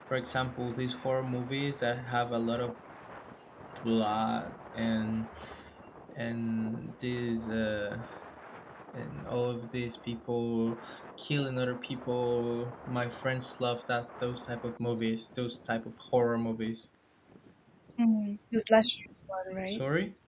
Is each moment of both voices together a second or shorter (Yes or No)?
Yes